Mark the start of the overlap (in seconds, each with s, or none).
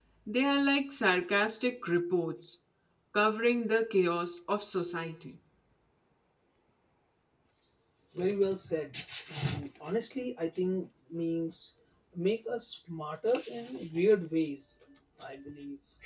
none